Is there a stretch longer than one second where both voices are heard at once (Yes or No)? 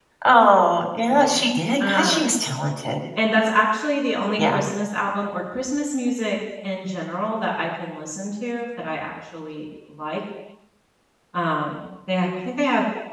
No